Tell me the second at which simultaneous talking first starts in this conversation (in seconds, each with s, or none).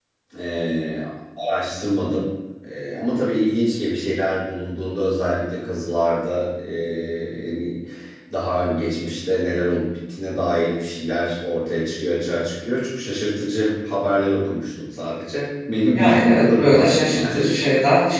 15.9 s